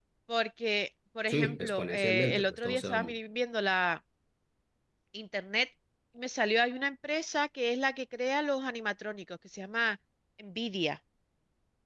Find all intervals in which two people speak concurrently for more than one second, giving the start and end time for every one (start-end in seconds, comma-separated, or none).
1.3-3.1